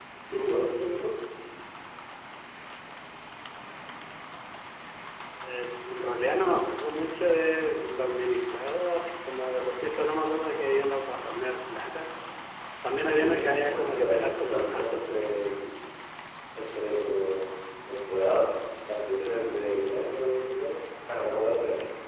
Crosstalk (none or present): present